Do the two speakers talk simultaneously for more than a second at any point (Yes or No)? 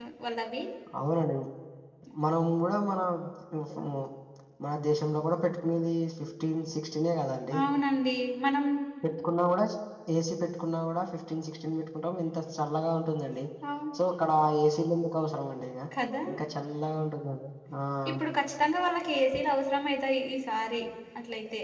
No